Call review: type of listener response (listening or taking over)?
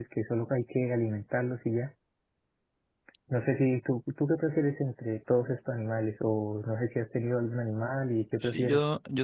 taking over